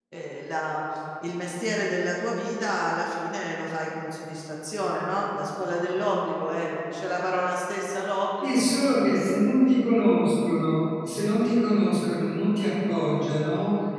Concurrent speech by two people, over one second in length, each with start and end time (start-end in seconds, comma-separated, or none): none